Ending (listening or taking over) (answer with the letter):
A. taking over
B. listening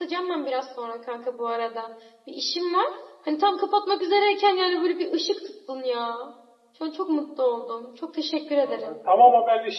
A